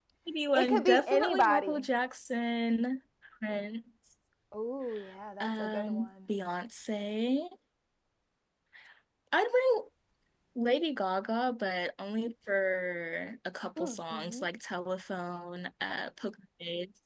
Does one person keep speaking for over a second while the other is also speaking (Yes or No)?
Yes